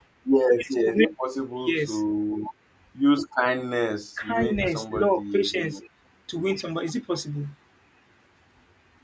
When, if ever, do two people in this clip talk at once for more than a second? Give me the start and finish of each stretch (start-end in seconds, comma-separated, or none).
4.2-5.8